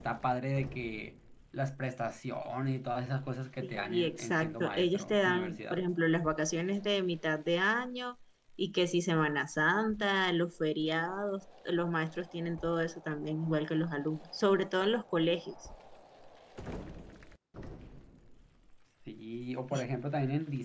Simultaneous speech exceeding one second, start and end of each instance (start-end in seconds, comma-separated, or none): 3.6-5.8